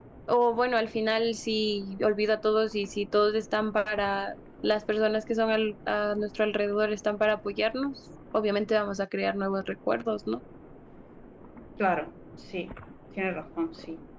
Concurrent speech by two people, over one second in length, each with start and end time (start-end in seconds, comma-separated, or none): none